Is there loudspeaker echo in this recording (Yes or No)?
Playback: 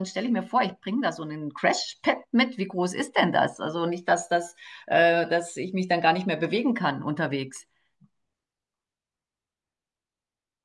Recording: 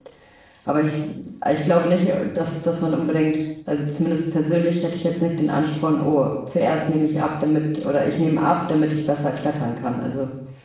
No